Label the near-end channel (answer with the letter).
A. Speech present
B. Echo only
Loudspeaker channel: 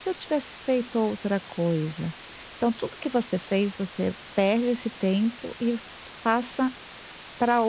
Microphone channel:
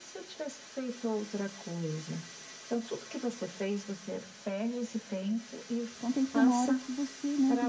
A